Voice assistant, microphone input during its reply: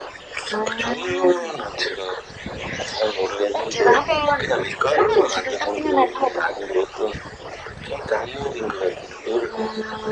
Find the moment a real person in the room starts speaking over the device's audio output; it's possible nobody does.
none

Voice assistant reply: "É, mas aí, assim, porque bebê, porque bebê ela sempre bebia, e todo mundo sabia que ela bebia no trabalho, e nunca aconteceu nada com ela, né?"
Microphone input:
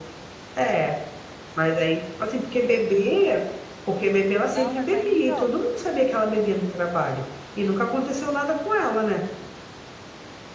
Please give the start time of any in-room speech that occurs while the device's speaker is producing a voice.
4.4 s

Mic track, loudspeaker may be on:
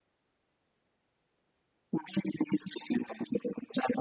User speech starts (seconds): none

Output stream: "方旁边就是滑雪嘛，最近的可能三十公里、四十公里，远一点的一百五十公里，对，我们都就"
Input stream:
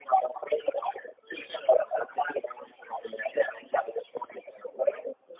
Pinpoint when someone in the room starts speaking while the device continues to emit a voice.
none

